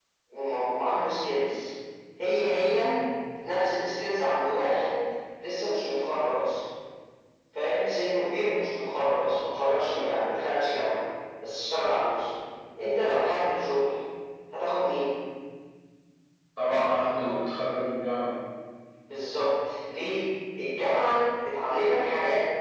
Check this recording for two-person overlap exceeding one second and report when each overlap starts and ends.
none

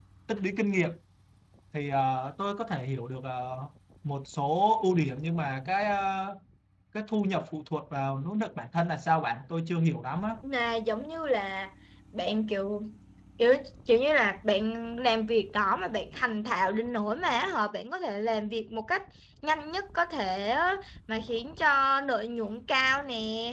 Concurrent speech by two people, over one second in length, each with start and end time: none

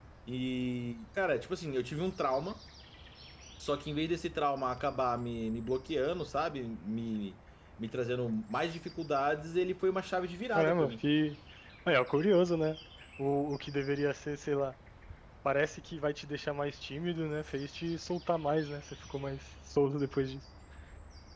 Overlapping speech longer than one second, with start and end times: none

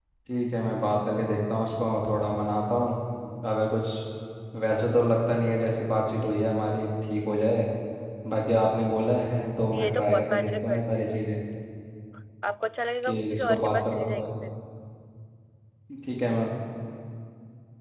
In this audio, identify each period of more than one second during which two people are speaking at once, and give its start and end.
9.7-11.2, 13.0-14.3

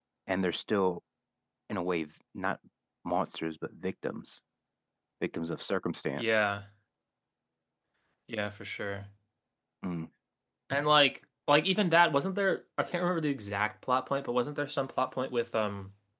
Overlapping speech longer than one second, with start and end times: none

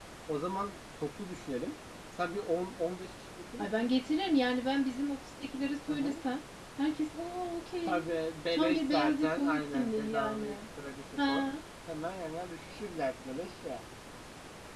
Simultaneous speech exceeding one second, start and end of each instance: 8.5-10.6

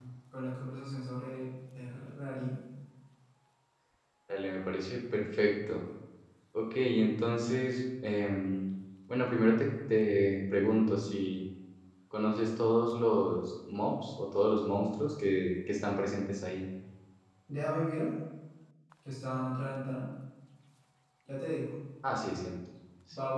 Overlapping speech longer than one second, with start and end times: none

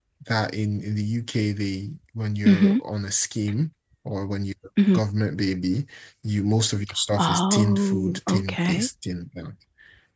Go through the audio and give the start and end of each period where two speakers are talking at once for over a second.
7.2-8.9

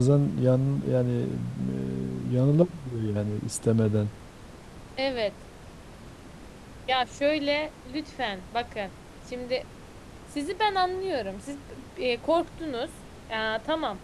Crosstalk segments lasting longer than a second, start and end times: none

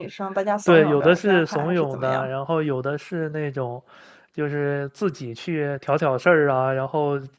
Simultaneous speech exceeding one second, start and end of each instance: 0.7-2.3

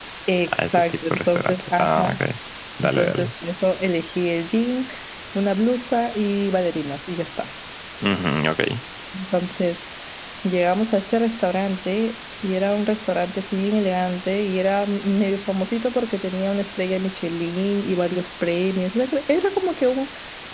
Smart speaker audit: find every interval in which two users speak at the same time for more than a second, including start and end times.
0.5-2.2

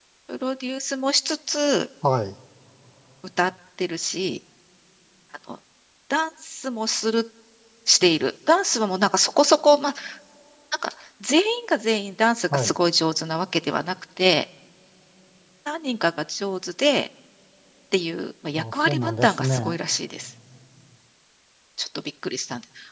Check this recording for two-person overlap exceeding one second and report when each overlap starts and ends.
18.6-19.8

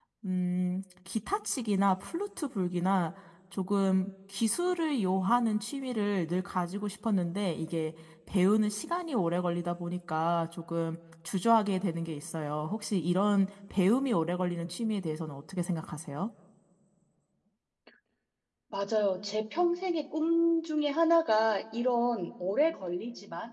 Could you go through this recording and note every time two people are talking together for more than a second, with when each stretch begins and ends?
none

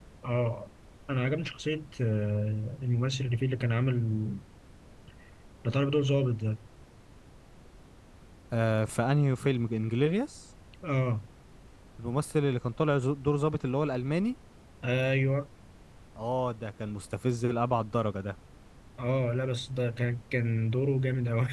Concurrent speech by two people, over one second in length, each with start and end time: none

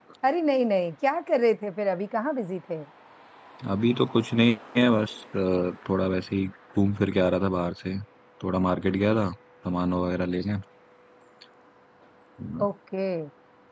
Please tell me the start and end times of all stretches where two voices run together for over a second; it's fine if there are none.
none

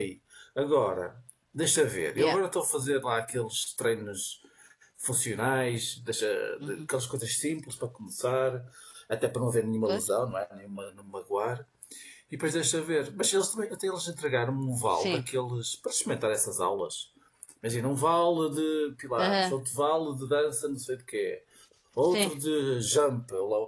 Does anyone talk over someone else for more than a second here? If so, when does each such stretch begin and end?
none

